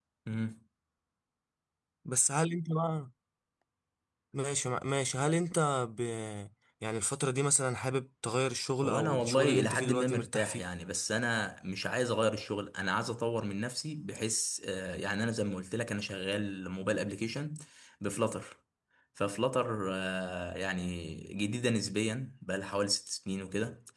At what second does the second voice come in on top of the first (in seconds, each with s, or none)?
8.8 s